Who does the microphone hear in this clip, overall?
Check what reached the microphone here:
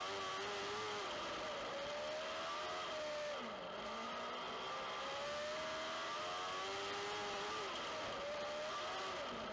neither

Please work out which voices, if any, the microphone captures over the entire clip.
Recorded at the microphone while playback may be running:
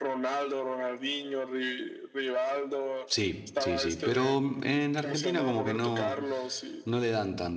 both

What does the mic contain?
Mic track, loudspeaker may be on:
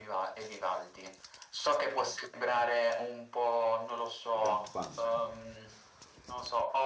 both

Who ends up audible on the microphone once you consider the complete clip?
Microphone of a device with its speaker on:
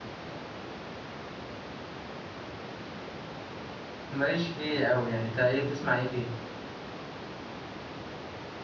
user only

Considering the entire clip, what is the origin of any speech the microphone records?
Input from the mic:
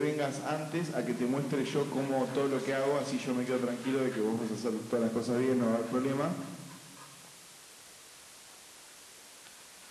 echo only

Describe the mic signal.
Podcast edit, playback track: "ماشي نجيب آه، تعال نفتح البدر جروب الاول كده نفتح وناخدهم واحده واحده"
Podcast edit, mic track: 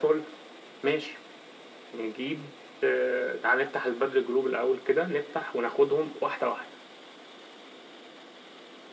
echo only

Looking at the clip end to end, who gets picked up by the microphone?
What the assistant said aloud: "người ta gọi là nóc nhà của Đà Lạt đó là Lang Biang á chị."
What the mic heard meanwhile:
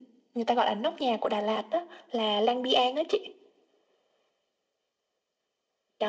echo only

